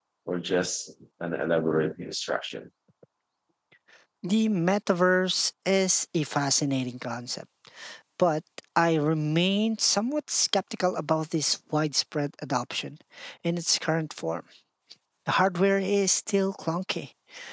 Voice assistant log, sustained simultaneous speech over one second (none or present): none